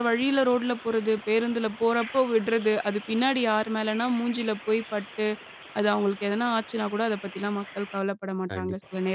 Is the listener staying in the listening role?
No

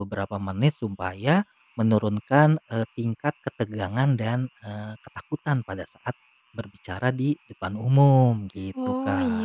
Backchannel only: No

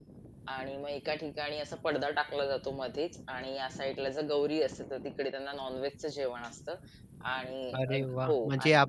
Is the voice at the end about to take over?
Yes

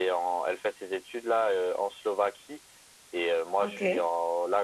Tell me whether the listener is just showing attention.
Yes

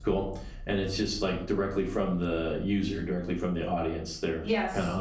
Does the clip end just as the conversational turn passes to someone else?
Yes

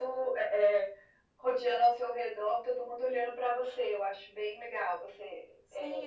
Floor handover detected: Yes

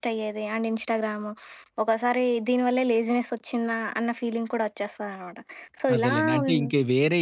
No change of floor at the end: No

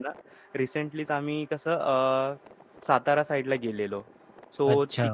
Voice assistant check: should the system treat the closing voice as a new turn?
No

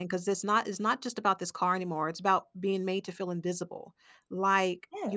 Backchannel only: Yes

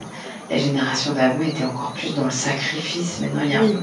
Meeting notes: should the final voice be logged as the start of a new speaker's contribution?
Yes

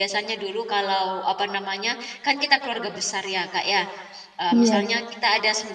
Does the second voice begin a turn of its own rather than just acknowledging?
No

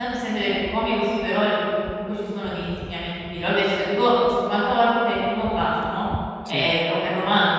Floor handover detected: No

